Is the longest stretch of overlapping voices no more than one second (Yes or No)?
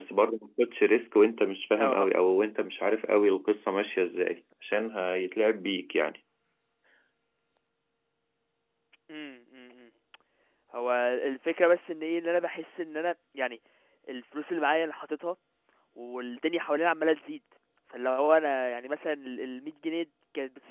Yes